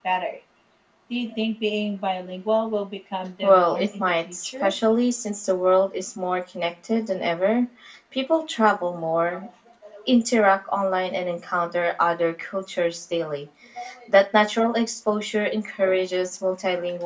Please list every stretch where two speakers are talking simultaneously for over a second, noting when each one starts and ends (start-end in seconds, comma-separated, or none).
3.4-4.7